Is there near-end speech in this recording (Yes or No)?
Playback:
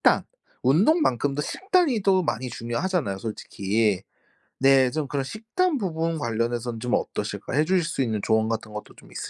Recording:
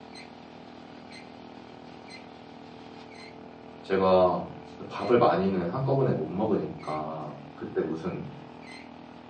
Yes